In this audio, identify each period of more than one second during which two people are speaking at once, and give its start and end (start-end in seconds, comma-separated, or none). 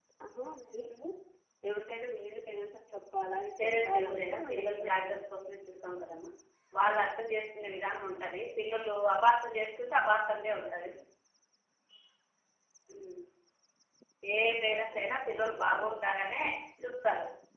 3.6-5.2, 14.8-16.0